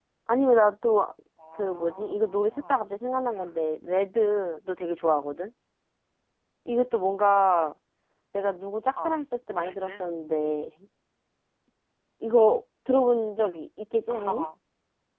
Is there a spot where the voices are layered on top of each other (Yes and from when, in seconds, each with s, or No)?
Yes, from 1.6 s